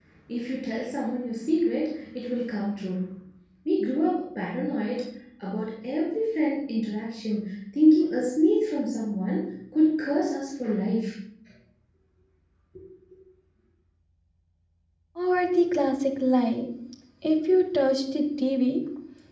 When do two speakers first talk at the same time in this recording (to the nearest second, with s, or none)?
none